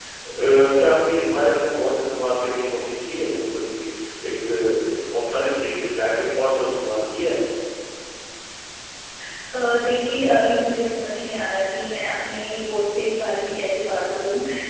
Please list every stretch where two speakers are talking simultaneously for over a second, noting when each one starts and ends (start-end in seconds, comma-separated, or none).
none